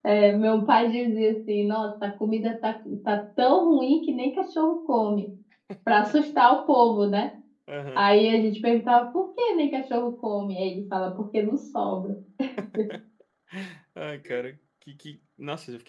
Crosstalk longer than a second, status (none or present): none